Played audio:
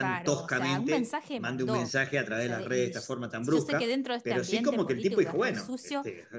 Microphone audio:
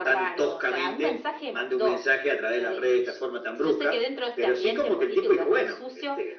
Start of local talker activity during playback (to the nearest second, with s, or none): none